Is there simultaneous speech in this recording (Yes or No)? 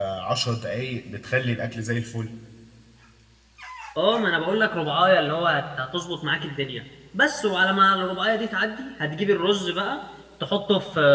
No